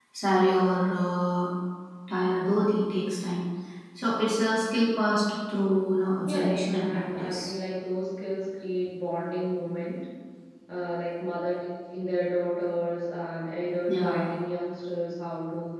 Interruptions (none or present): present